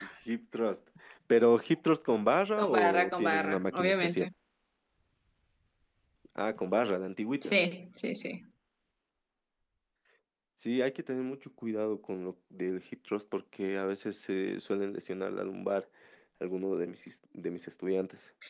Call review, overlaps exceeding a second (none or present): present